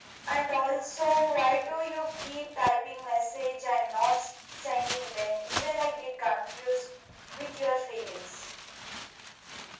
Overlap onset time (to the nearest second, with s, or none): none